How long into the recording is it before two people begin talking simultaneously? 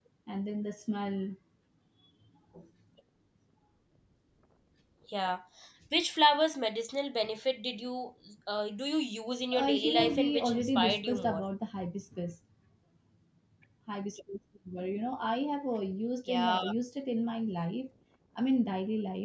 9.5 s

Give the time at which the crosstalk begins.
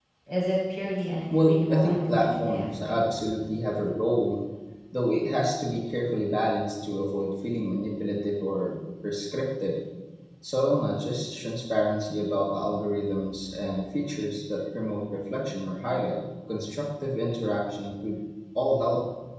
1.3 s

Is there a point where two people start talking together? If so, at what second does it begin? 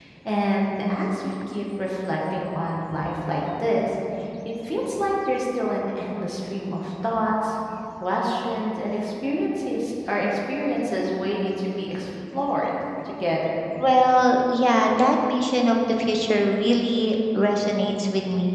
none

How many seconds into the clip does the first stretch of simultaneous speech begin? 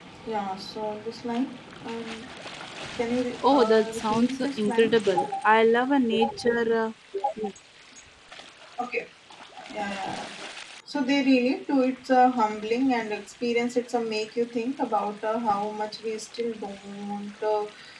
3.4 s

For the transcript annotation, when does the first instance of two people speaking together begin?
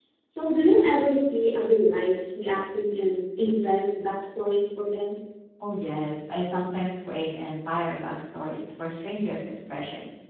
none

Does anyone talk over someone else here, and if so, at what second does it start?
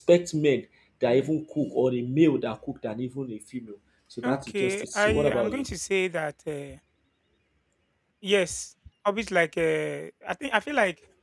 4.2 s

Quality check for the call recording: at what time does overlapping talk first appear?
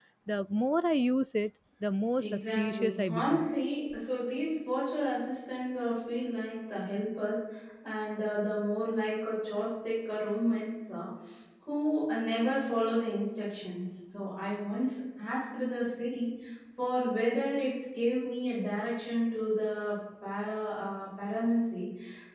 2.2 s

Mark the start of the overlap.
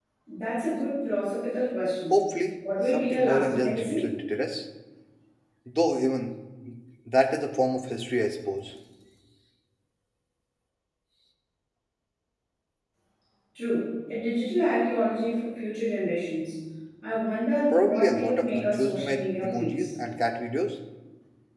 2.9 s

